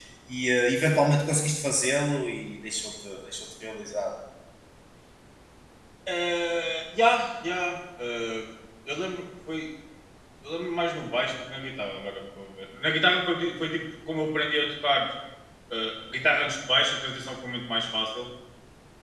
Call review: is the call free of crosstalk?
Yes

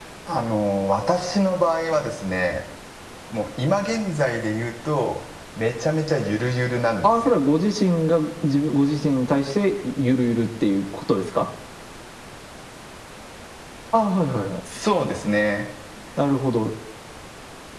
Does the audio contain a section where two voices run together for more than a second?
No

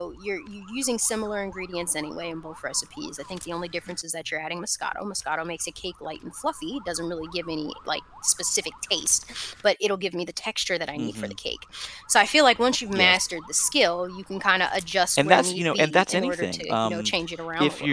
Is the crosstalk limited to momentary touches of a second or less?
No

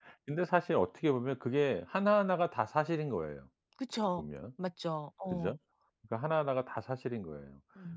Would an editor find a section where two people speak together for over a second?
No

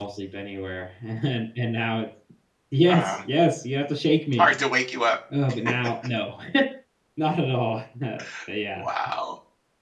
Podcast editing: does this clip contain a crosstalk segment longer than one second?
No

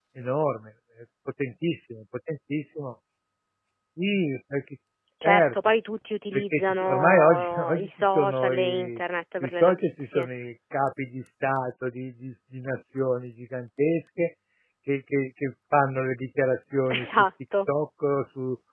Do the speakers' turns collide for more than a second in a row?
Yes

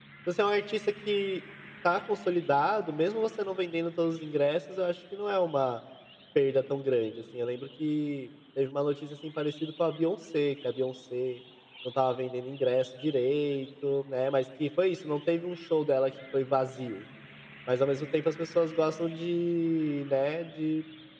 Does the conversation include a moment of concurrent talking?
No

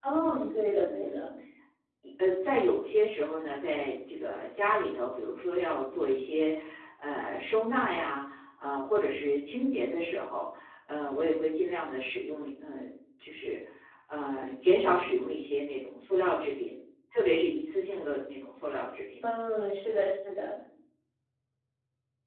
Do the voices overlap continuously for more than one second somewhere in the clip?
No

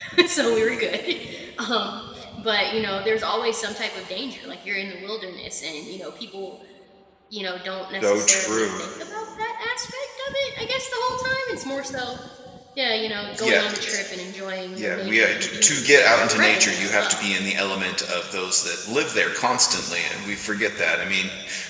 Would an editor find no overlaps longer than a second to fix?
No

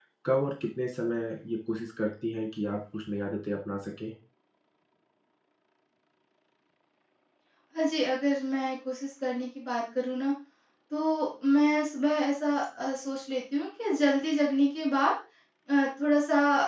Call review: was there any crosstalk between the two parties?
No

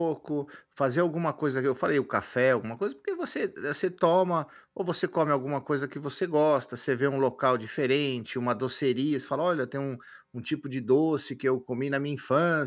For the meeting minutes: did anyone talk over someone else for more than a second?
No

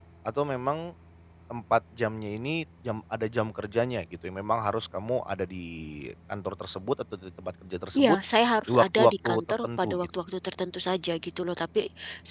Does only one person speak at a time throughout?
No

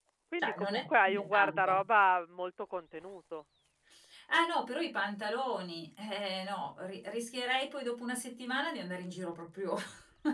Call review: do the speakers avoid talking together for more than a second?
No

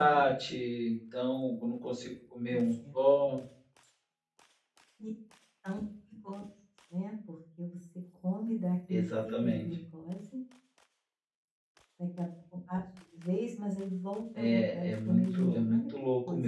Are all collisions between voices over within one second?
No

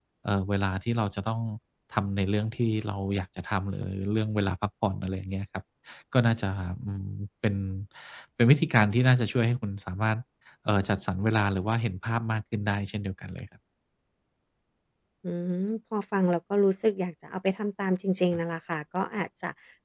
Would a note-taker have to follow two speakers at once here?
No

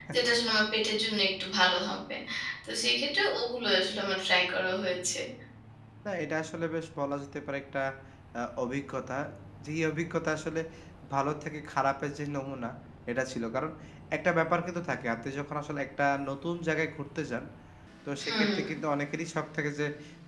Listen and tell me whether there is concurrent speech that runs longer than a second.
No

